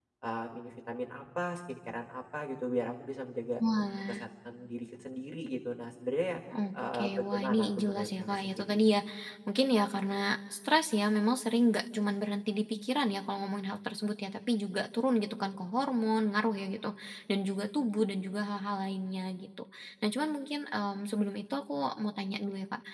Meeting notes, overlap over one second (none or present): present